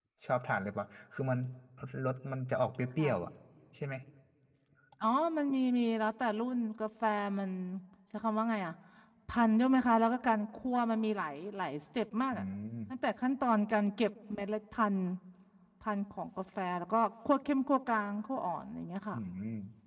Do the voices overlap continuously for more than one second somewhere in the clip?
No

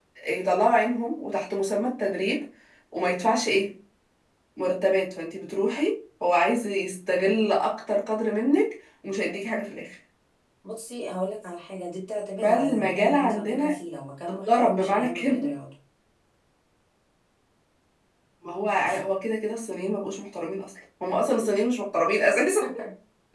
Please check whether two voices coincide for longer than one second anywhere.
Yes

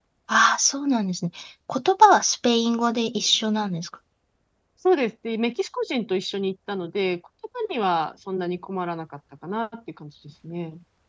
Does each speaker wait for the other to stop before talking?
Yes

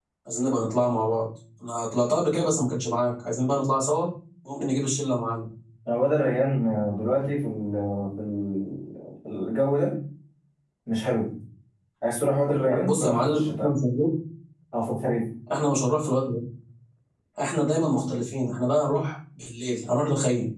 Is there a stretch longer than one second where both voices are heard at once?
Yes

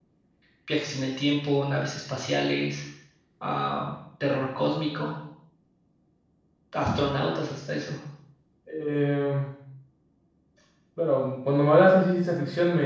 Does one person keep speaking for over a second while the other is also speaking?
No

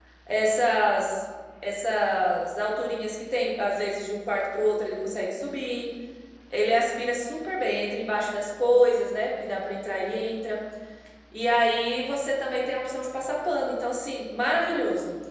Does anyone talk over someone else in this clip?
No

